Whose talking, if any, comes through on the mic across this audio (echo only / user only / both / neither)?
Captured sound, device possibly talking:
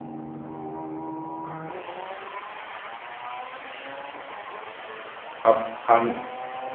user only